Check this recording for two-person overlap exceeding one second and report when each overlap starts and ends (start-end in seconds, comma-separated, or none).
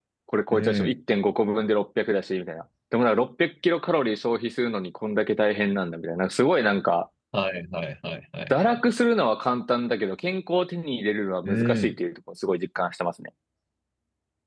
none